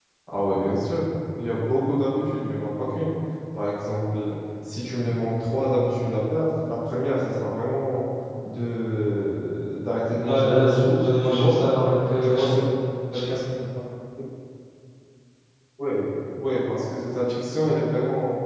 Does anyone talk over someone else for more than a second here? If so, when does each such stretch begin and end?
10.2-11.6

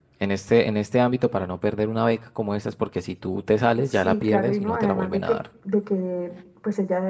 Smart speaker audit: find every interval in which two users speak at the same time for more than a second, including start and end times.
3.9-5.4

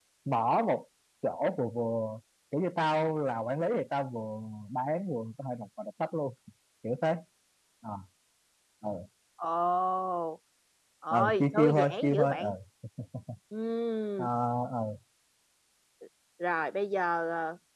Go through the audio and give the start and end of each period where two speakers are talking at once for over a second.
11.1-12.5

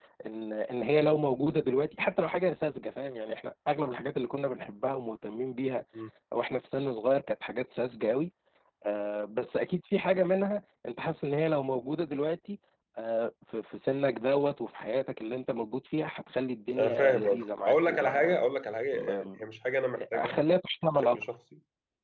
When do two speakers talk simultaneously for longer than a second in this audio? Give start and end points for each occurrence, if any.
16.8-18.4

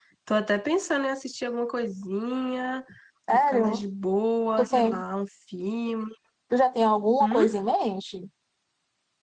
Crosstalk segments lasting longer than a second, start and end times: none

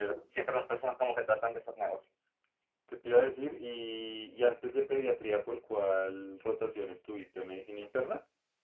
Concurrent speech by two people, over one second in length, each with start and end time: none

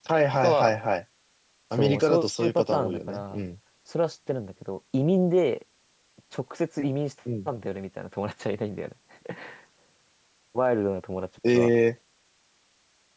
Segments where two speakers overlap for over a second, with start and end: 1.8-3.4

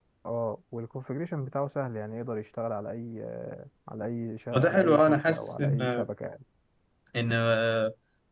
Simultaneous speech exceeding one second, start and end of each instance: 4.5-6.1

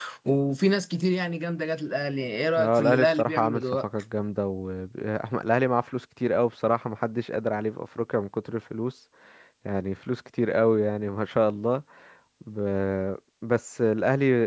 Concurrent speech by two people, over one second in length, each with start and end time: 2.6-3.8

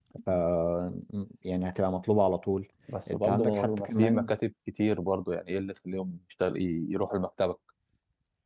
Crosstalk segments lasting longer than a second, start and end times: 3.1-4.3

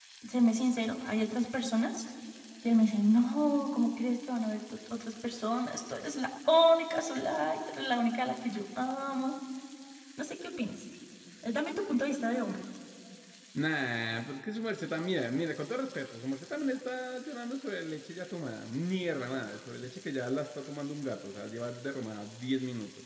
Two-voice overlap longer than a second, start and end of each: none

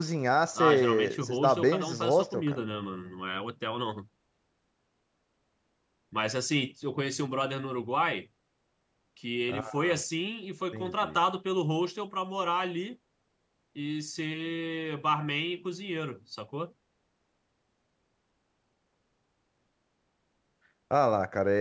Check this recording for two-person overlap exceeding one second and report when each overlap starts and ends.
0.6-2.6

